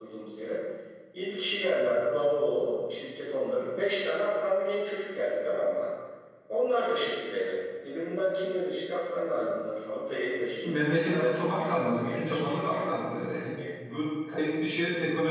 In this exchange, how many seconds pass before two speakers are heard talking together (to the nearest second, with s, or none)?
11 s